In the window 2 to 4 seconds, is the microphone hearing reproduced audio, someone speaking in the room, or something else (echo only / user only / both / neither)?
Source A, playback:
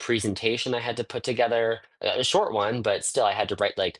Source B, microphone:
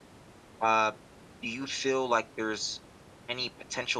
user only